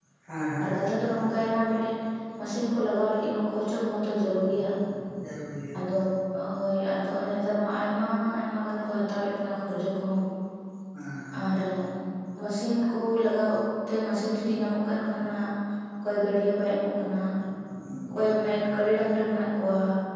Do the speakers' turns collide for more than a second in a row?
No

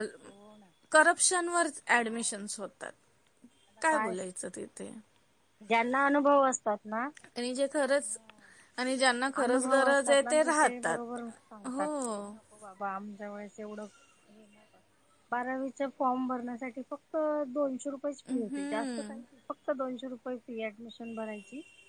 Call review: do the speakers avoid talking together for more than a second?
No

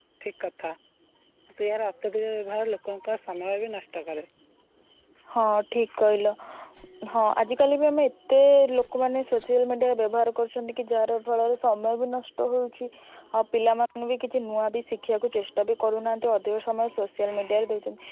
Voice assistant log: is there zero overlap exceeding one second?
Yes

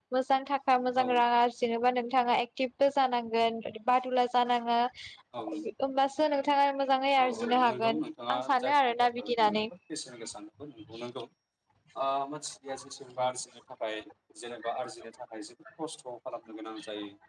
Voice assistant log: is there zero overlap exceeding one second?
No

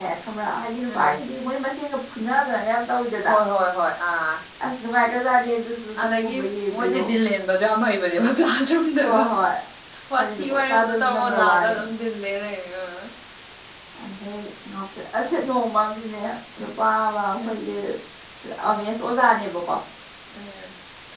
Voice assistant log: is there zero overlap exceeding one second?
No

